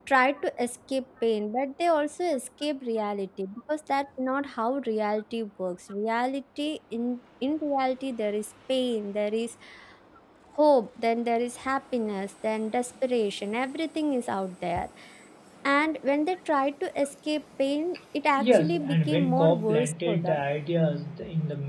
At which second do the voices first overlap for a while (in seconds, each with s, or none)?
18.4 s